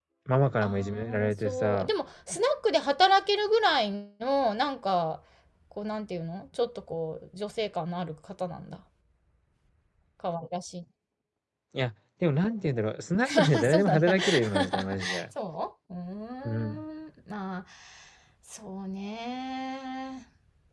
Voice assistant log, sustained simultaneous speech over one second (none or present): present